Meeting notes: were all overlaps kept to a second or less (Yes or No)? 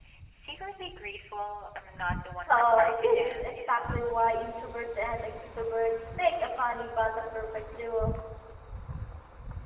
No